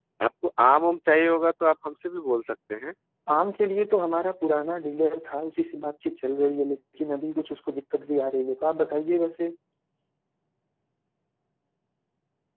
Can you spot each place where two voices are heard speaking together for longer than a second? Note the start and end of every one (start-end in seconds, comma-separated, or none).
none